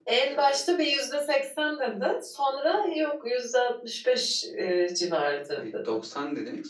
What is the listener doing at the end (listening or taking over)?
taking over